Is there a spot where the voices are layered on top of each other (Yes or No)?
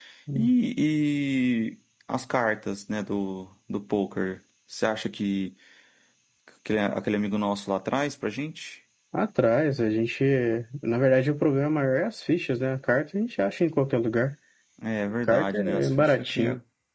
Yes